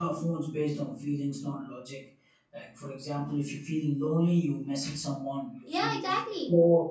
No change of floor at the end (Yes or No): Yes